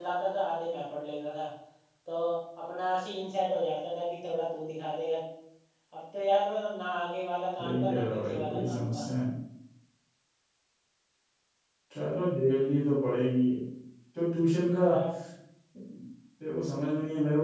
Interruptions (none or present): present